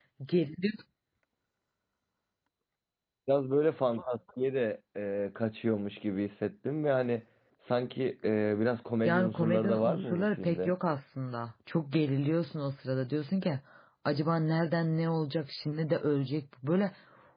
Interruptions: present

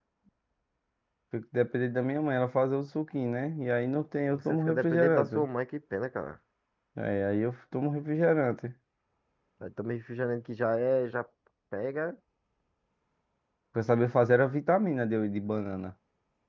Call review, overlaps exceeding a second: present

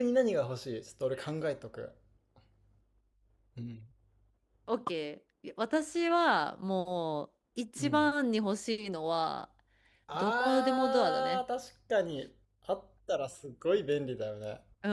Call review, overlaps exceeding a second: present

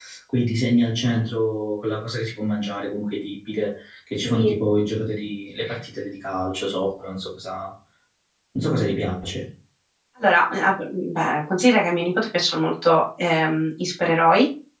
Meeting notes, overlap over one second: none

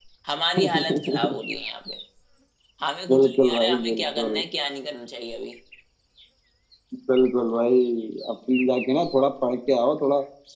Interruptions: present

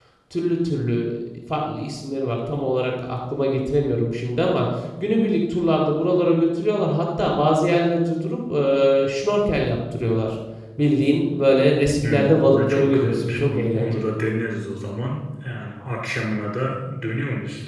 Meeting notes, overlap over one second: present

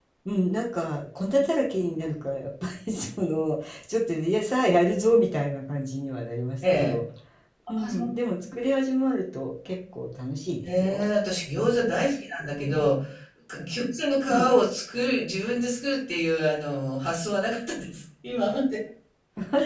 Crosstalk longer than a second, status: none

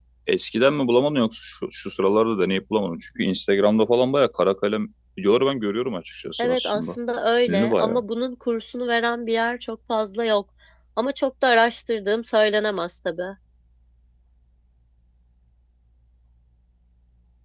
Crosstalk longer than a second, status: none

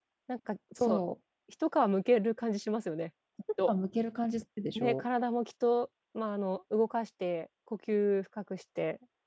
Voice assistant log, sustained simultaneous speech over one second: none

